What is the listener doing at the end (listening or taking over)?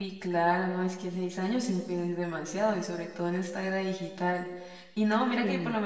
listening